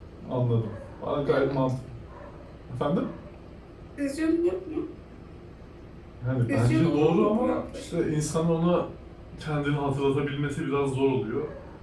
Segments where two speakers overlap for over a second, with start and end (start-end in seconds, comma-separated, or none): 6.5-8.0